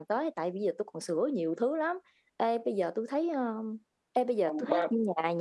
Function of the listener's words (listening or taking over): listening